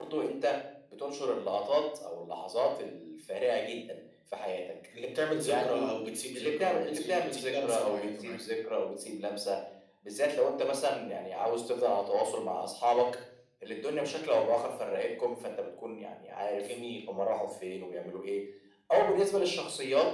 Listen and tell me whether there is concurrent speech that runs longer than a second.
Yes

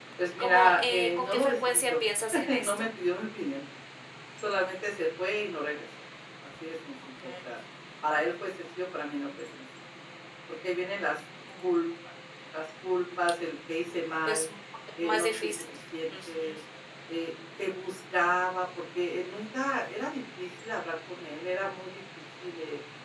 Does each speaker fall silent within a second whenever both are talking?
No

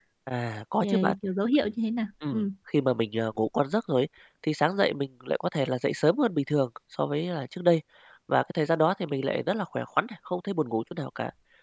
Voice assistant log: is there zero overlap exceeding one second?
Yes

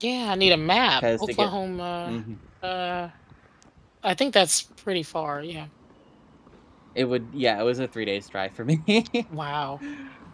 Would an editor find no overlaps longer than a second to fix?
Yes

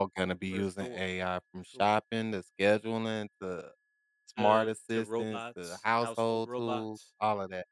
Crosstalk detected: Yes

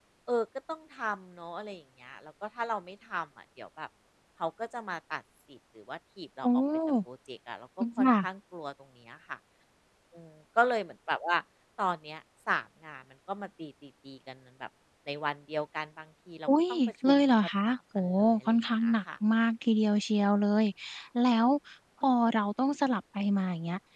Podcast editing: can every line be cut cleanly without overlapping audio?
No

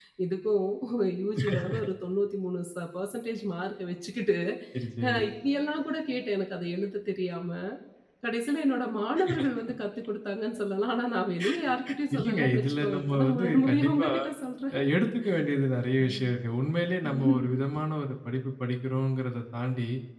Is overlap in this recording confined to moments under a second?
No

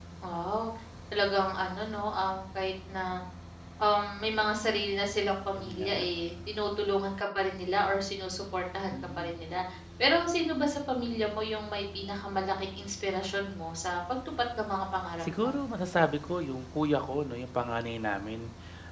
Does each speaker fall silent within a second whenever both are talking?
Yes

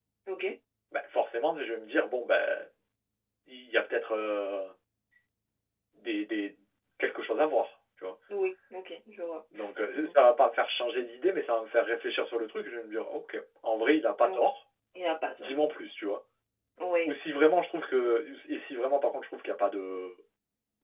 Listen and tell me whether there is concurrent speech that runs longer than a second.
No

